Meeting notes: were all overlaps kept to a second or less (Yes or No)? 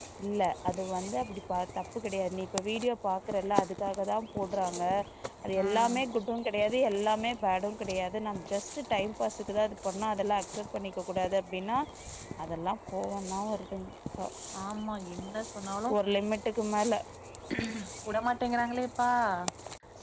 Yes